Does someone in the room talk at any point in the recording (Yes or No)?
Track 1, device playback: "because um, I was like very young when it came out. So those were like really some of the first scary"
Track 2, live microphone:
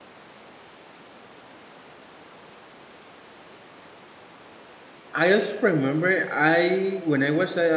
Yes